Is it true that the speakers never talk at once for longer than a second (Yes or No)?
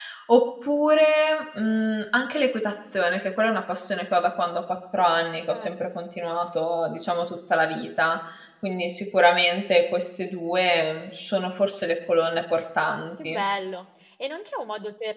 Yes